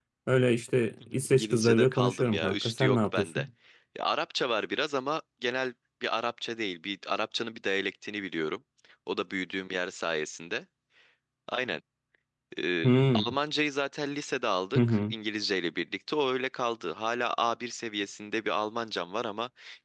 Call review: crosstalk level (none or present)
present